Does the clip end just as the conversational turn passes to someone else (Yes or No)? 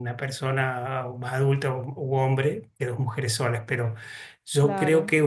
No